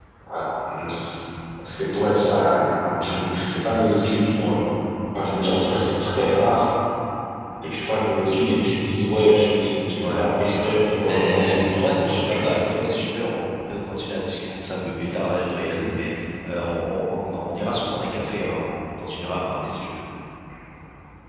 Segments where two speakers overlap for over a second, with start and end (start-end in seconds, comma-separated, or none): 11.1-12.5